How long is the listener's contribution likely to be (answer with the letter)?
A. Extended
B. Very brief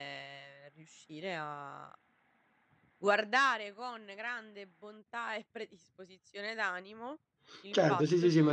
A